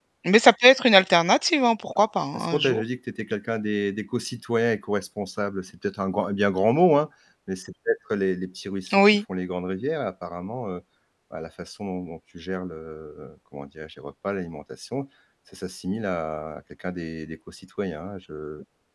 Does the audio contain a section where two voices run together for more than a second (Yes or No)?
No